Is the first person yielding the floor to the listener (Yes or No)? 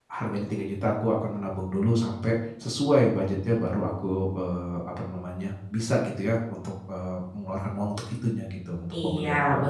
Yes